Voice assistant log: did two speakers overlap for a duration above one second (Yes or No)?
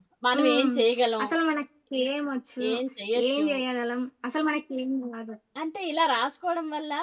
No